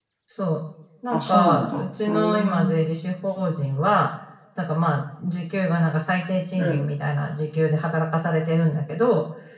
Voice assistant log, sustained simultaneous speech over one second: present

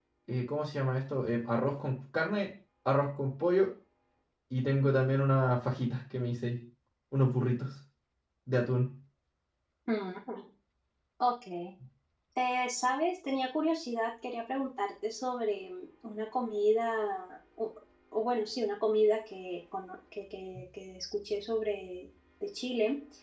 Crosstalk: none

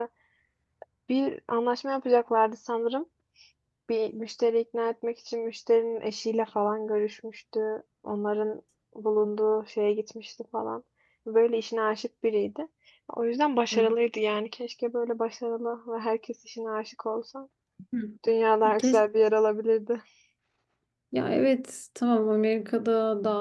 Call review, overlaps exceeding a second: none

